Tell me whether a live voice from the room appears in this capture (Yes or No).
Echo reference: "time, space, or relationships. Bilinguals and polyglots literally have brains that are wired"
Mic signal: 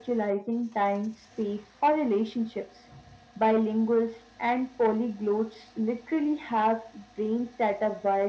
No